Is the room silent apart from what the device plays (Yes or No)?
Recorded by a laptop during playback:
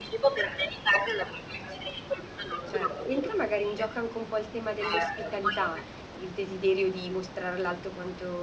No